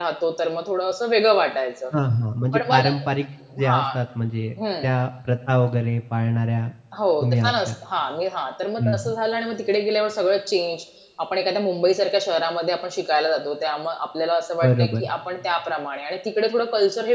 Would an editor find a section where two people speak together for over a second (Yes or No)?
No